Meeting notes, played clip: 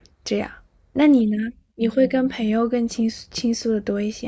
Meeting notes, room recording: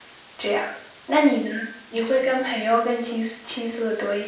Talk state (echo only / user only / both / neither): echo only